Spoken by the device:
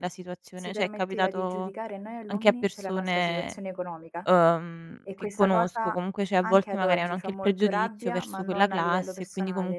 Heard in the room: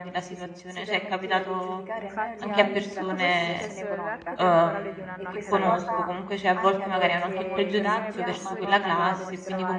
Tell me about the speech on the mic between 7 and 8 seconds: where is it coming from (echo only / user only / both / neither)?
both